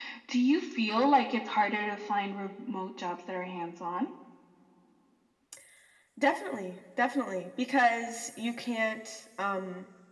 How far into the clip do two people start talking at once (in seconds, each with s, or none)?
none